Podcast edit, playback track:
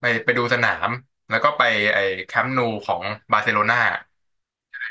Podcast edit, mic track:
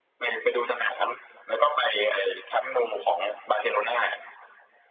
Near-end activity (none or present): none